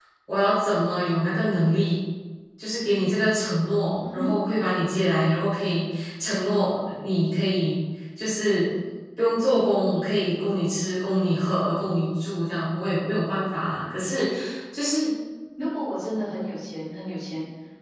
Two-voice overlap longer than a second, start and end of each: none

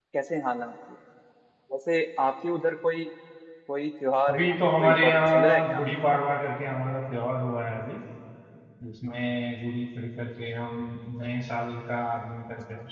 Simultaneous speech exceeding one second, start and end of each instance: 4.3-5.8

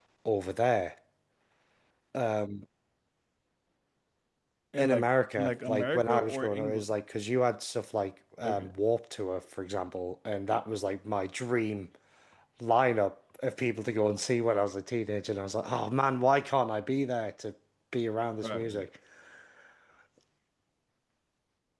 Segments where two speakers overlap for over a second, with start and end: 4.8-6.9

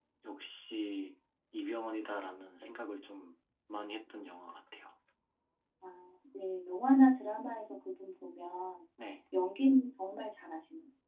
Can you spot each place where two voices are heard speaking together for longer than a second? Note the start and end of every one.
none

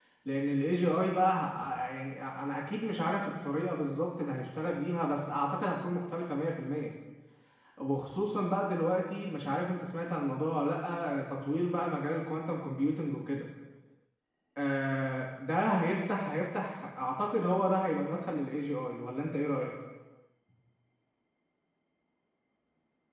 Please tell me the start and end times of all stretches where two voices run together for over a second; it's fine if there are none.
none

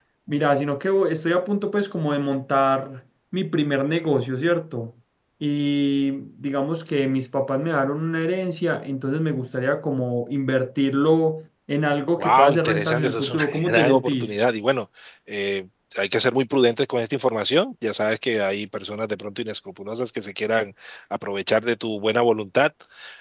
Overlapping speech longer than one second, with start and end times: 12.2-14.4

